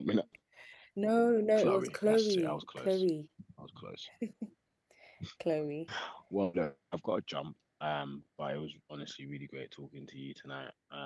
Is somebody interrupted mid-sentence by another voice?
Yes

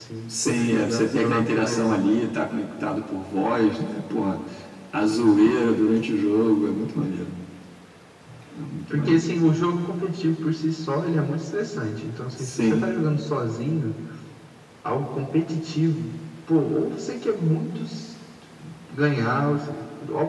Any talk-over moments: Yes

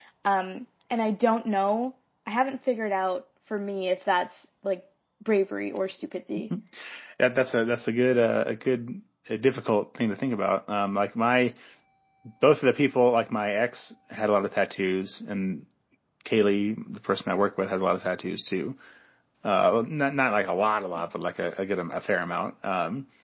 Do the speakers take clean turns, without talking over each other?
Yes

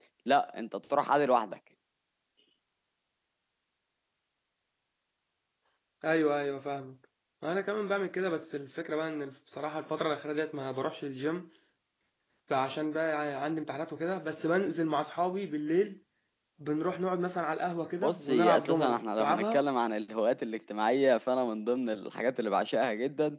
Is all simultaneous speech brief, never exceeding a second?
No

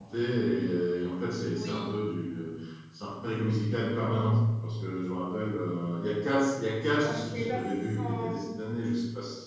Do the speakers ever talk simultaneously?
Yes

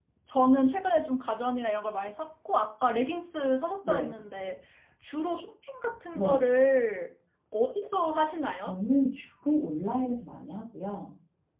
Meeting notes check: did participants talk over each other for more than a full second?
No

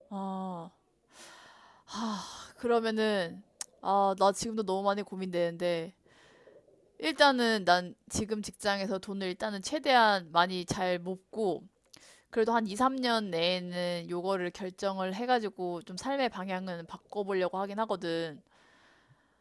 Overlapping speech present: No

